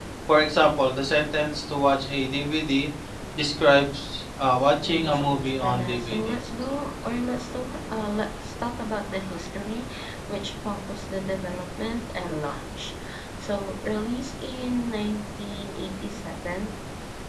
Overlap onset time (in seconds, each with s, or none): 4.8 s